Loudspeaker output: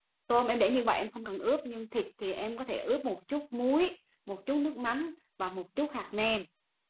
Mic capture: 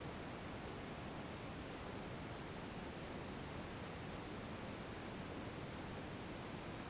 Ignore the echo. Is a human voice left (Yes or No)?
No